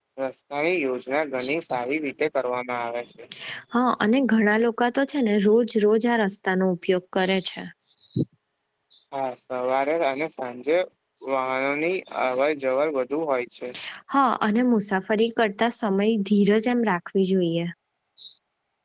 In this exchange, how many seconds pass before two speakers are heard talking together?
none

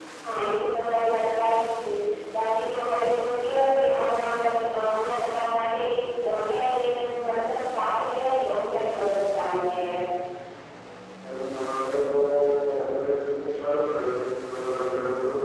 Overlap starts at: none

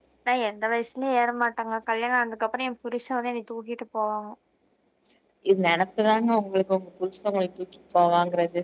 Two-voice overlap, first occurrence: none

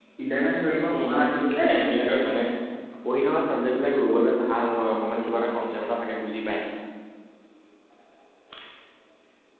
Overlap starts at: 1.0 s

